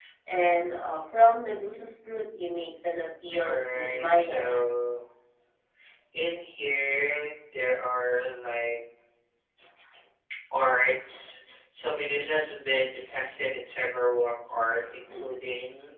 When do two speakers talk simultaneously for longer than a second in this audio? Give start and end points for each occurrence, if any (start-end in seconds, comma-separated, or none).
3.3-4.6